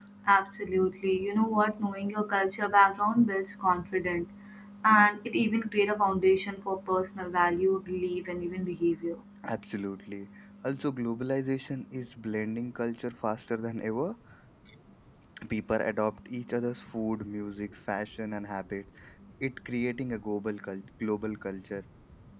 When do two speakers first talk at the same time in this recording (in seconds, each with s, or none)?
none